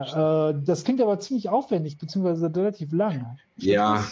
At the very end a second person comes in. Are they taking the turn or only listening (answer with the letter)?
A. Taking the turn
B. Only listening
A